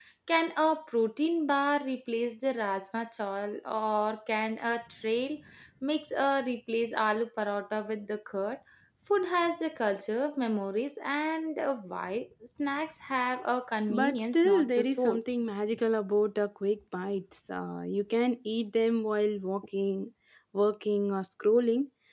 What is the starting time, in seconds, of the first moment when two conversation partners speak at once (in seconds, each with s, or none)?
13.9 s